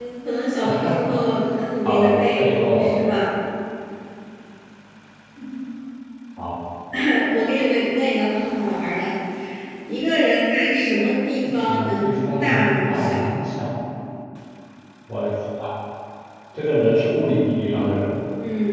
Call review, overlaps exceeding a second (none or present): present